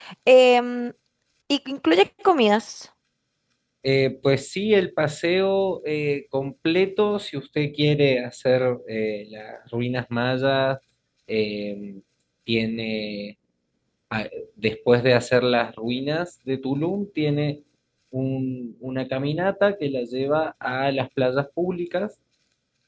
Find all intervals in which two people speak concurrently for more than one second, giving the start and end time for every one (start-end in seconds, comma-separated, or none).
none